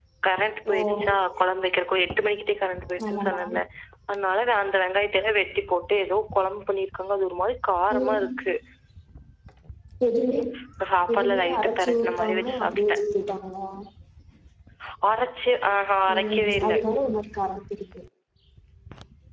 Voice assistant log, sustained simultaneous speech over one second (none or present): present